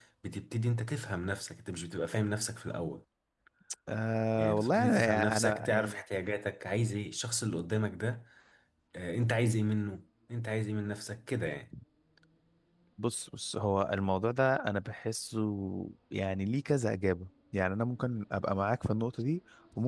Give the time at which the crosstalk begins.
4.4 s

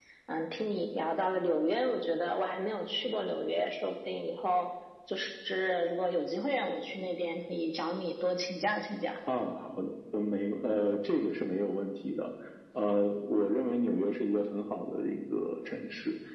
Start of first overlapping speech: none

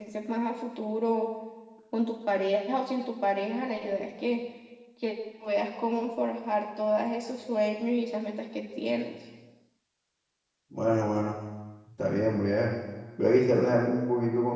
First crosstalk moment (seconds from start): none

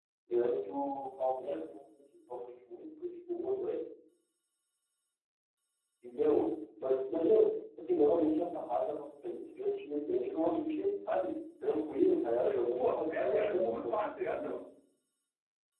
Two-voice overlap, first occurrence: 12.8 s

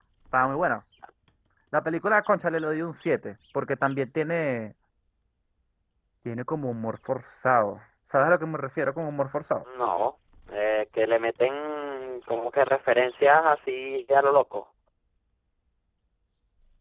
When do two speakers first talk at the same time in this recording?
none

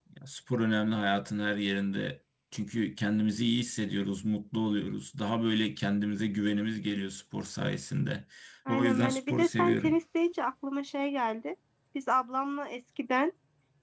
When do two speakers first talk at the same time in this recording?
8.7 s

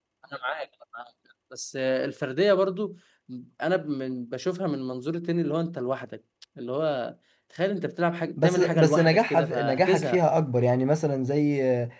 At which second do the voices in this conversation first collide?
8.4 s

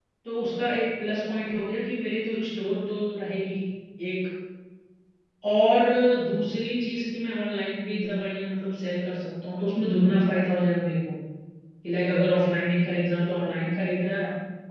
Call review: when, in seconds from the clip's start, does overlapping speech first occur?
none

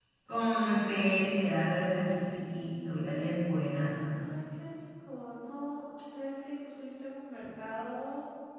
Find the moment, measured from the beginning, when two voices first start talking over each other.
none

